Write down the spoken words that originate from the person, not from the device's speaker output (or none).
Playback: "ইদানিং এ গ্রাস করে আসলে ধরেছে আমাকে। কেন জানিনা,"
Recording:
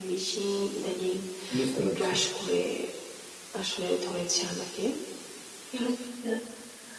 বুঝতে পারছি।